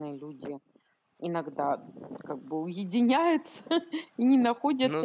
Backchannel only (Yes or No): Yes